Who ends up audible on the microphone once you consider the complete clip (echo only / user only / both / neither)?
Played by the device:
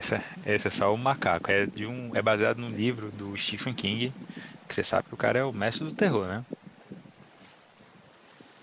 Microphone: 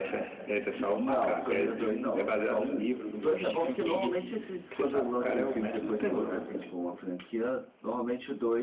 both